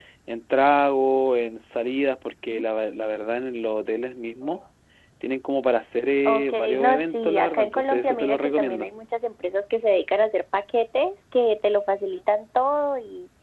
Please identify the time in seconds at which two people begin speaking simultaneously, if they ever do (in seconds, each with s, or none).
6.2 s